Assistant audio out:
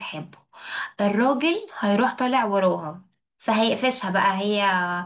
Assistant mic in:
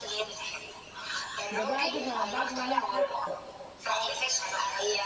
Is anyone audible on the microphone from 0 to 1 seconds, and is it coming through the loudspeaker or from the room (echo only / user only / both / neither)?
echo only